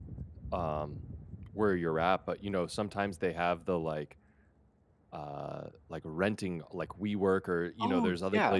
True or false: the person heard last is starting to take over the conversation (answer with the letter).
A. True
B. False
B